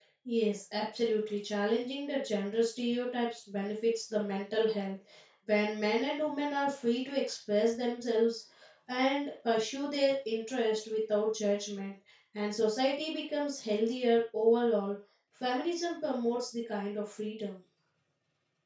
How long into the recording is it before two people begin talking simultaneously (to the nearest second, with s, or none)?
none